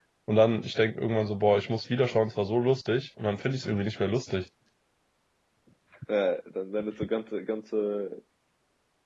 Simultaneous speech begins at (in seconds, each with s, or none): none